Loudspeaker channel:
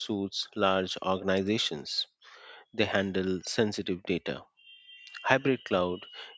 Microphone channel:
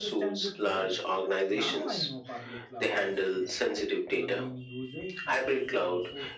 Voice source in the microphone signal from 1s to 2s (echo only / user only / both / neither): both